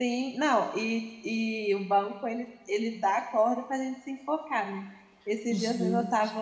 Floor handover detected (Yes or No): No